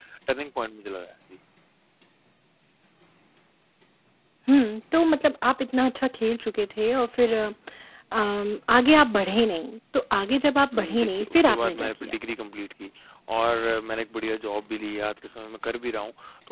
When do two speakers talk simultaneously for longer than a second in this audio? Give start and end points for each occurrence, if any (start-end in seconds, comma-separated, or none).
10.7-12.1